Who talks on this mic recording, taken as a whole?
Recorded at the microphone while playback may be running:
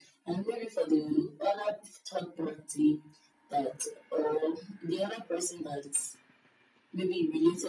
echo only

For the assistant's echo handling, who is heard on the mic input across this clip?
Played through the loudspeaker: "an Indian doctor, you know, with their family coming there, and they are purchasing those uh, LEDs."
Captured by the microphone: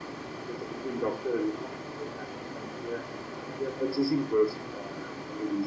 echo only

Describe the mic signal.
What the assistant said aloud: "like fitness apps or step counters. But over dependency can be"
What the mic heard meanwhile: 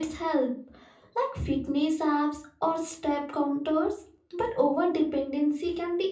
echo only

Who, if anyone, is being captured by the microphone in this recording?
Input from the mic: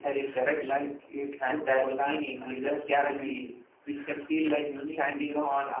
echo only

